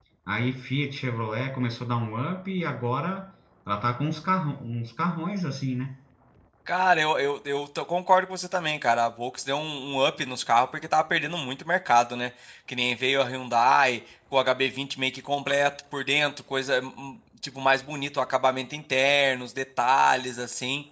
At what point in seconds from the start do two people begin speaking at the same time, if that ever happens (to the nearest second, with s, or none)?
none